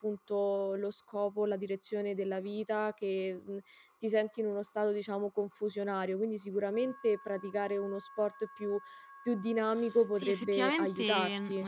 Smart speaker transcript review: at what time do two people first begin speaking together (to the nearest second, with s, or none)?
10 s